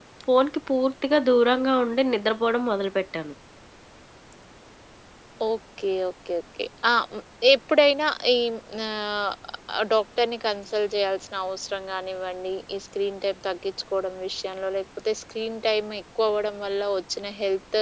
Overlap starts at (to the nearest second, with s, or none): none